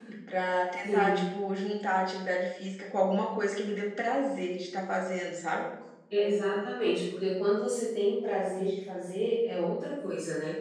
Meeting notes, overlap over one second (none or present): none